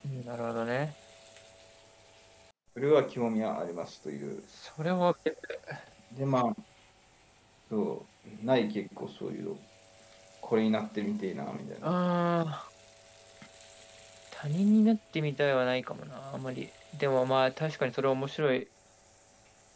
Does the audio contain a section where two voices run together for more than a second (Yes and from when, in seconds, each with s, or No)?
No